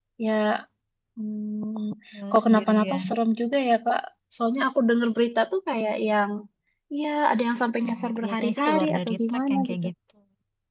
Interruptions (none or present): present